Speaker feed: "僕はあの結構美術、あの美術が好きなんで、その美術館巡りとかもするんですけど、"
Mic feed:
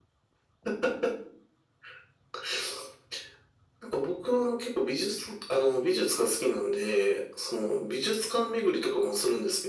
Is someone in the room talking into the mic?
No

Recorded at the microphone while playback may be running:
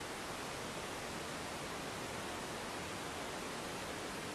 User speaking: No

